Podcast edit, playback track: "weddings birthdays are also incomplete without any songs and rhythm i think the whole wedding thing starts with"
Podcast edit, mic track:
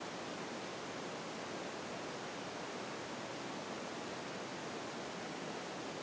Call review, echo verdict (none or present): none